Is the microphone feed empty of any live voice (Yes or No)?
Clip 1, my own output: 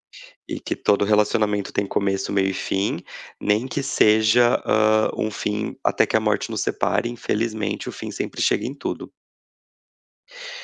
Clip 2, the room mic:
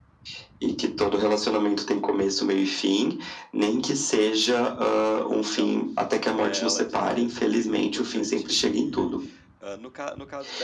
No